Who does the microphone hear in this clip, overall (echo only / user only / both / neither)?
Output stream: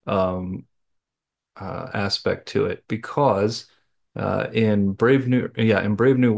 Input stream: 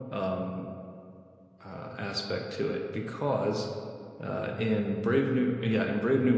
echo only